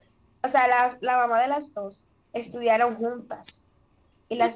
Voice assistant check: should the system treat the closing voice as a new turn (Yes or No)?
Yes